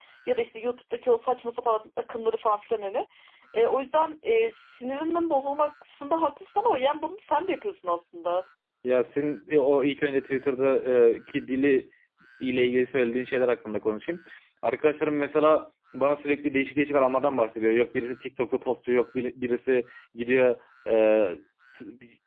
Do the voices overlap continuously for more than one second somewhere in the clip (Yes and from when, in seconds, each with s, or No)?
No